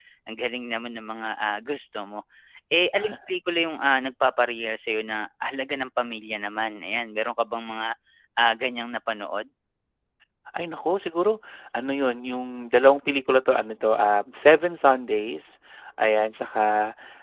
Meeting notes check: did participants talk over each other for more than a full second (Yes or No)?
No